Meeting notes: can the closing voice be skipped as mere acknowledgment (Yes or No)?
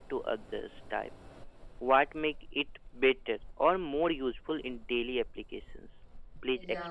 No